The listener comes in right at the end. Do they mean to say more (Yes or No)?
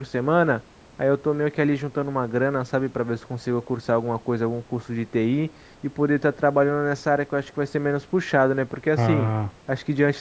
No